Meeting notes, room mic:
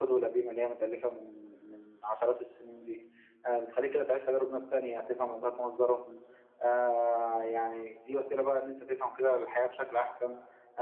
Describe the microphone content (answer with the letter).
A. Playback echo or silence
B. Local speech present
A